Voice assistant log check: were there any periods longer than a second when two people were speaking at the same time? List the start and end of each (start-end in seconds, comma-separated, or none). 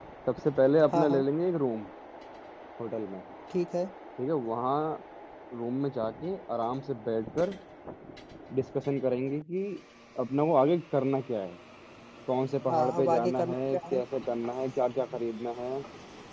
12.7-14.0